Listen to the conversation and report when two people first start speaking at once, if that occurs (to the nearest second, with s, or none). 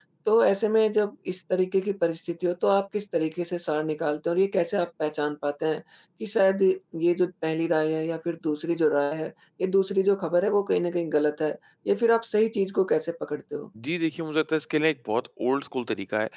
none